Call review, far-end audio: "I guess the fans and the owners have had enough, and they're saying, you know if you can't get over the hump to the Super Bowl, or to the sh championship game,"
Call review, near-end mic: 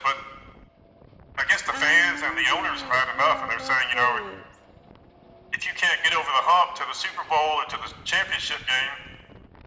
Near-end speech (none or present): present